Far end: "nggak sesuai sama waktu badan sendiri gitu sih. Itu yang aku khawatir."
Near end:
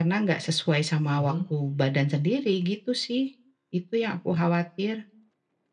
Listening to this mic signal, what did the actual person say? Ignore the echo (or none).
mhm.